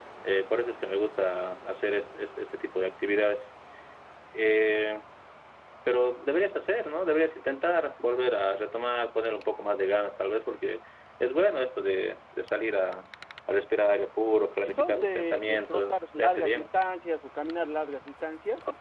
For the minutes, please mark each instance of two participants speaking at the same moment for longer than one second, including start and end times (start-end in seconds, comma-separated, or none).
14.6-16.6